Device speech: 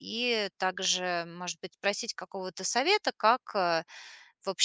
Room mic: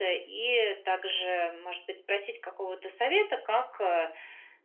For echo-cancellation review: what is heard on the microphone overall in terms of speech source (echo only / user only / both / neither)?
echo only